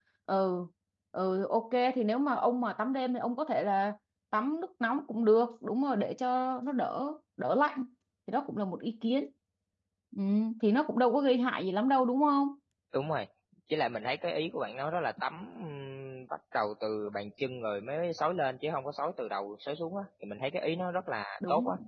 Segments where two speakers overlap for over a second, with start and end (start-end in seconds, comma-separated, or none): none